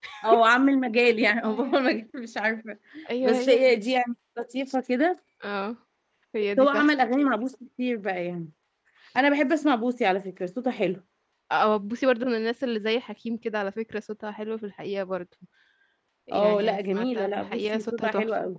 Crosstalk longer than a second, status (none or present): present